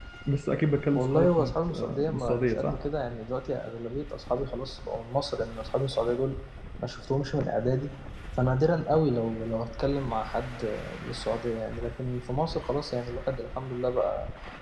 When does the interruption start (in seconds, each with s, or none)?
0.9 s